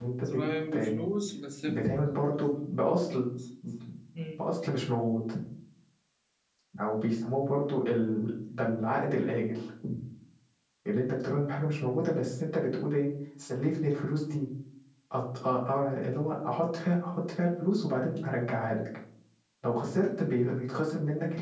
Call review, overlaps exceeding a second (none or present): none